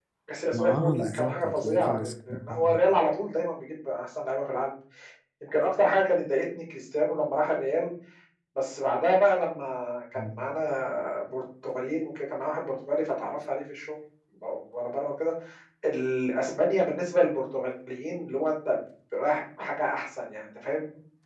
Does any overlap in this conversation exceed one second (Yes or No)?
Yes